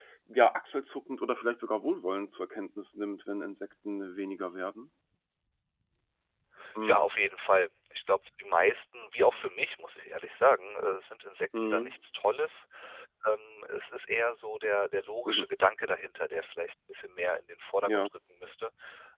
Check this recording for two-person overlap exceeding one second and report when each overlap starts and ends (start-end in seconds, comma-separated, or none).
none